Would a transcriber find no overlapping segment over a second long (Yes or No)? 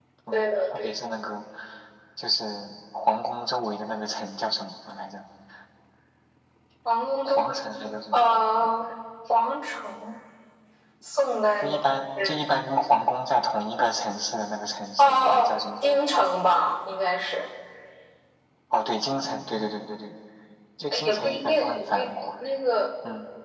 No